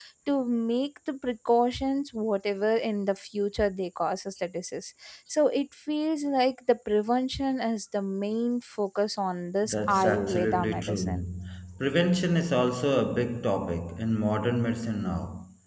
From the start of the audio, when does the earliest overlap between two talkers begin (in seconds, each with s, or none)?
9.6 s